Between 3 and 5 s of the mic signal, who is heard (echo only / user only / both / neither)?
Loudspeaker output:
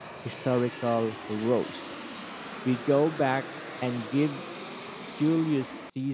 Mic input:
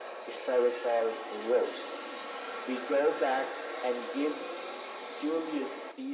echo only